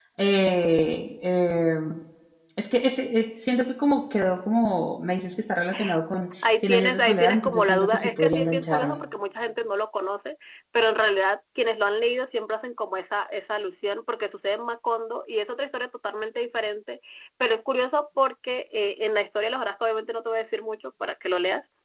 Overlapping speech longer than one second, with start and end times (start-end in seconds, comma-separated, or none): 6.6-9.0